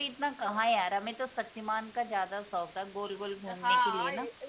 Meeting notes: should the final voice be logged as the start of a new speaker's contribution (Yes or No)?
Yes